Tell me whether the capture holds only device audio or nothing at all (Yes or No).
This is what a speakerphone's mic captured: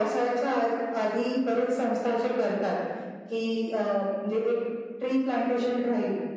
Yes